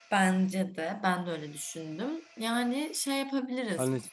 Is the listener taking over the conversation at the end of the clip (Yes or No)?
Yes